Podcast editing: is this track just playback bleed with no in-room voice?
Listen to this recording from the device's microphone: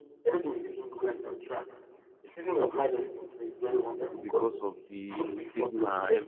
No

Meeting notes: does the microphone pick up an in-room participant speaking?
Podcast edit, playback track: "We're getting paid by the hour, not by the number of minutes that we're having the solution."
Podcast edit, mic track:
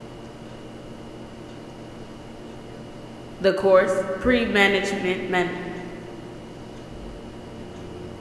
Yes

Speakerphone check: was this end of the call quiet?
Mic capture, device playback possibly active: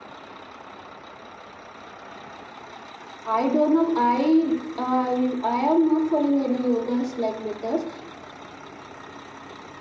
No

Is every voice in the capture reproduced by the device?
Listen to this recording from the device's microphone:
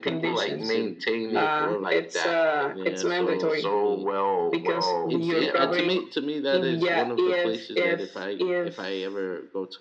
No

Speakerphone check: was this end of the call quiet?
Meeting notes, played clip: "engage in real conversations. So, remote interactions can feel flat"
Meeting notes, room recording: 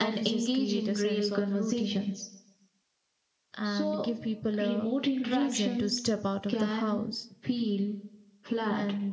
No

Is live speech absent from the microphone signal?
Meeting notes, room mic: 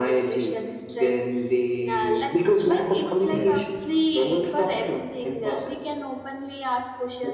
No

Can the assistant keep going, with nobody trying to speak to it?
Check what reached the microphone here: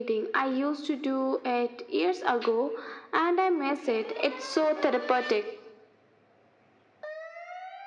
Yes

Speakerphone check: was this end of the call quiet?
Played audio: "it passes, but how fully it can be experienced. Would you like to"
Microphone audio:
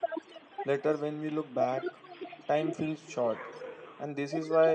No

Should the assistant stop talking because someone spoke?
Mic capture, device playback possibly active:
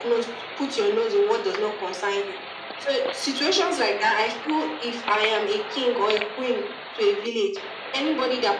No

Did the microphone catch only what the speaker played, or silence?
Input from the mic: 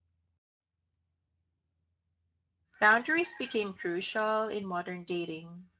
No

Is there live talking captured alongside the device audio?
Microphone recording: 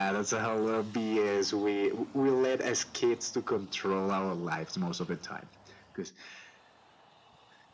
No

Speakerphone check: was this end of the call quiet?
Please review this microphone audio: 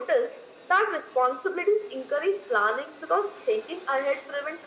Yes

